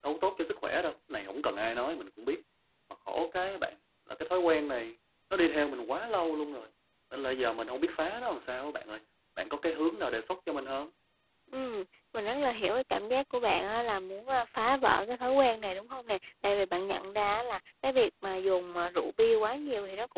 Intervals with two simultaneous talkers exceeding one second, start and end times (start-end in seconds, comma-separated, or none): none